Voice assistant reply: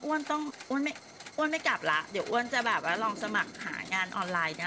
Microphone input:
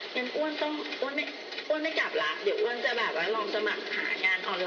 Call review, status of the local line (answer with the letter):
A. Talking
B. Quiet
B